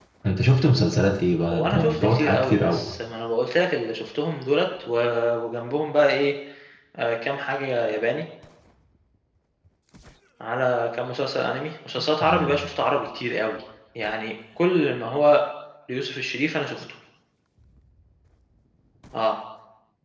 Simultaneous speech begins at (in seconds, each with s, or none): 1.4 s